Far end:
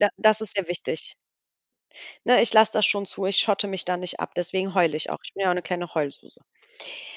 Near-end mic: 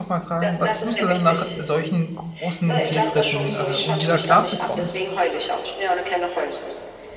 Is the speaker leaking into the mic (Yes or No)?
Yes